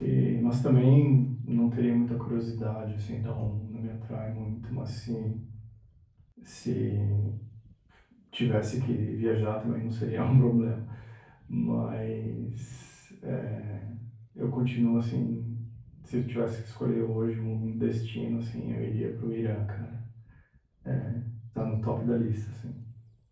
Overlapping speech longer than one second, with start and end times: none

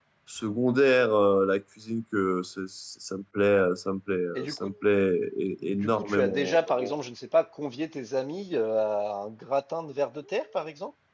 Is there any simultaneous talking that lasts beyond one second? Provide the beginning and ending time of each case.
5.6-7.0

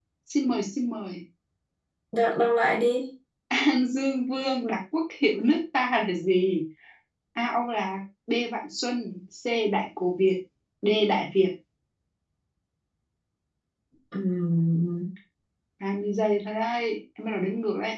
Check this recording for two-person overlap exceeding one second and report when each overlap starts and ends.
none

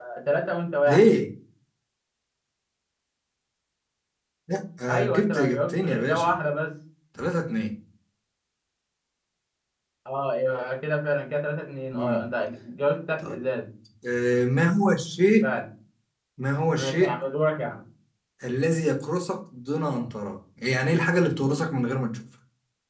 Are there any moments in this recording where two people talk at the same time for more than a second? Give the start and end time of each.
4.9-6.3

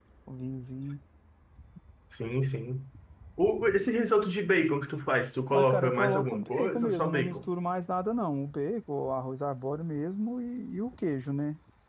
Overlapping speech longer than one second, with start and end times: 5.5-7.4

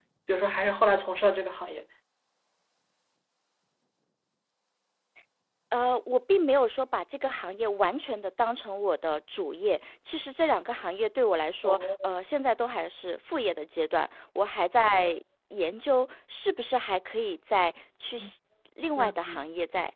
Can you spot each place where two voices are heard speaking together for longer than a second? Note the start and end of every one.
none

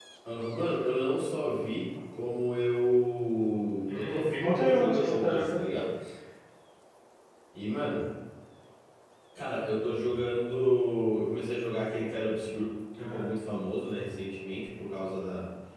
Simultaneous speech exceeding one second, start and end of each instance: 3.9-5.7

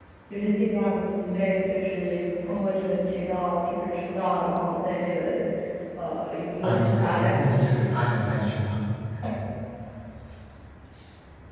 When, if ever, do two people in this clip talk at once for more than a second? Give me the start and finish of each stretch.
6.6-7.8

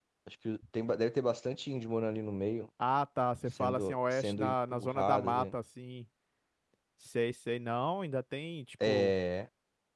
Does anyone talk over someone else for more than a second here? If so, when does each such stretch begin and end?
3.6-5.4

